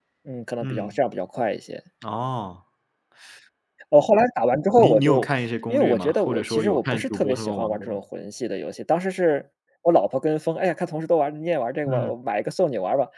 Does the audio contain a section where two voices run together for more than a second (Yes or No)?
Yes